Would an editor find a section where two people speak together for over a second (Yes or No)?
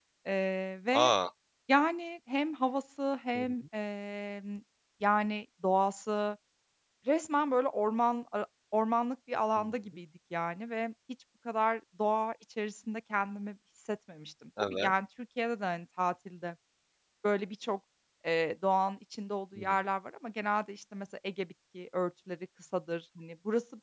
No